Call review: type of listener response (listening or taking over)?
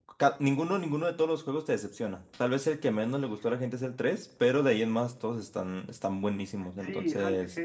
taking over